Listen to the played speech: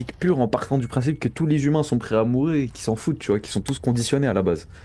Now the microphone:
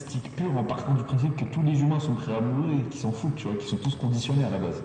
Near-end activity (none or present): none